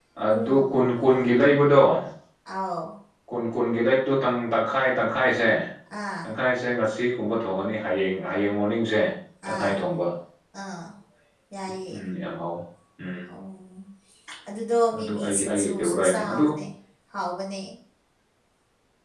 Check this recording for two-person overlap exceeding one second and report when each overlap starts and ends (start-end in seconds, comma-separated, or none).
15.0-16.4